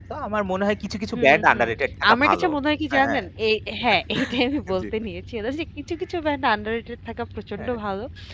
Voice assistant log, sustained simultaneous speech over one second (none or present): none